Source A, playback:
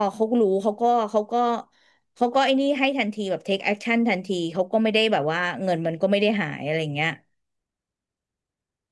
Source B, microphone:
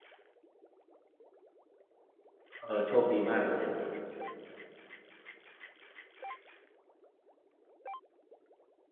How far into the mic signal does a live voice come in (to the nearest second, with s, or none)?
3 s